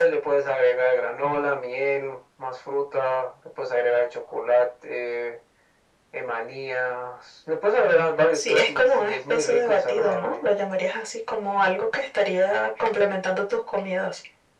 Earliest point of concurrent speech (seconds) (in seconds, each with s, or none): 8.3 s